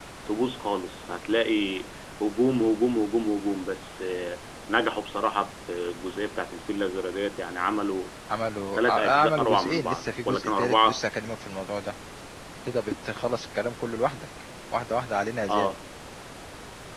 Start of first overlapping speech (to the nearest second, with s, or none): 9 s